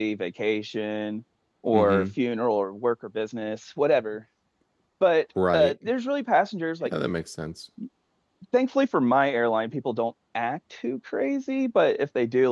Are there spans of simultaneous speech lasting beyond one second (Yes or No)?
No